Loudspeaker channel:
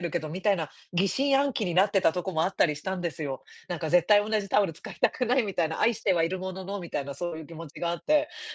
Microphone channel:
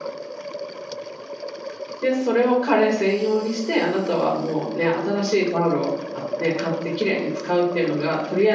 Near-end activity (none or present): present